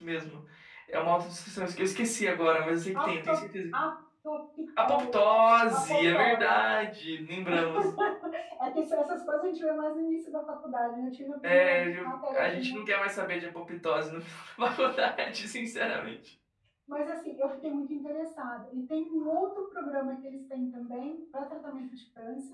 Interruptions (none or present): present